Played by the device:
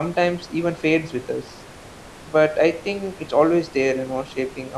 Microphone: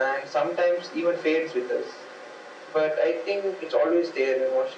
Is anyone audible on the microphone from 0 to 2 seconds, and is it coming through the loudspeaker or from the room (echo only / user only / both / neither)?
echo only